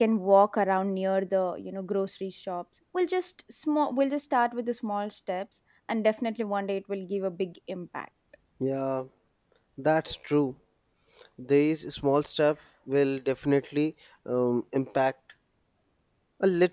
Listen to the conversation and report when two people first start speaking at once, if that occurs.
none

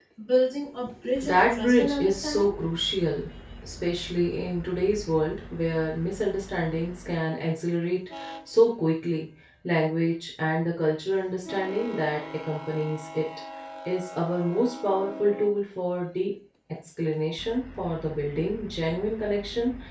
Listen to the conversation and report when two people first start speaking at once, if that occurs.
1 s

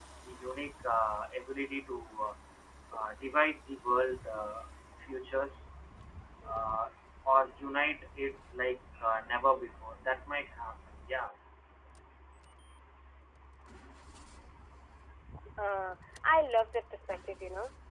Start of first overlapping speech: none

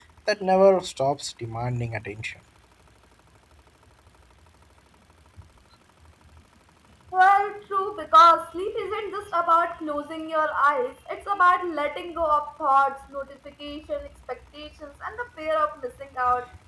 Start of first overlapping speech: none

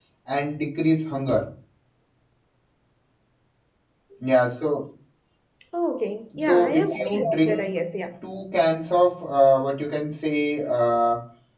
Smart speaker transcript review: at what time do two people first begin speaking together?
6 s

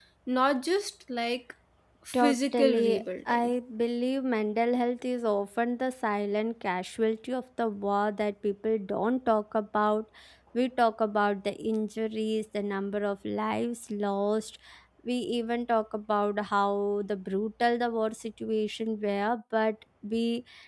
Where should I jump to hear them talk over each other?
2 s

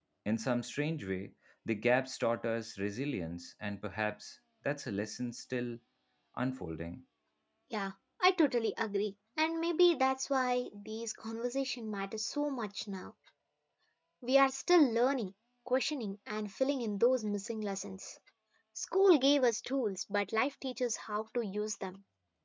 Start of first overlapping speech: none

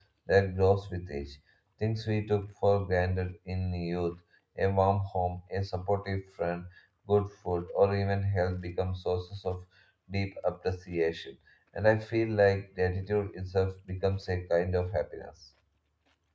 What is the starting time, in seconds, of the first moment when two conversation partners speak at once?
none

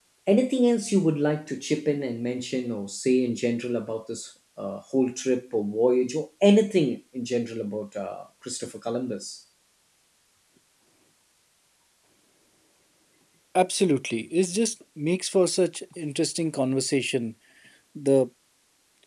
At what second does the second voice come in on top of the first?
none

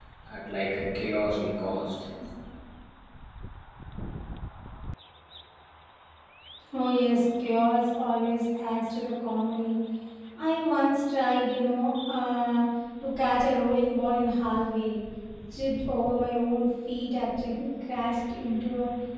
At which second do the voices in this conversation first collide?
none

